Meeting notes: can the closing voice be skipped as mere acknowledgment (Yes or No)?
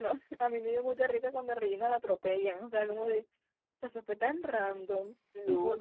Yes